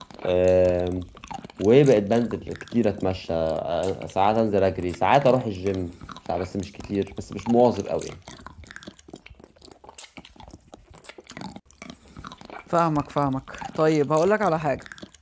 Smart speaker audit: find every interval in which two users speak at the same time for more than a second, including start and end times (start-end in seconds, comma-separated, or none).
none